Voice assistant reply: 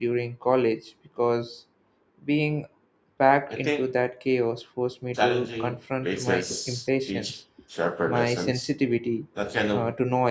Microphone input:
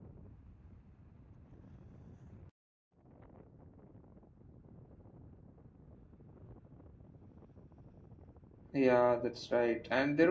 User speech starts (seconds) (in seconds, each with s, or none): 8.7 s